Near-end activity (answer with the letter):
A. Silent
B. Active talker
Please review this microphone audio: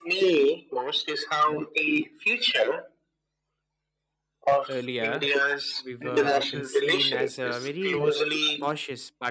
B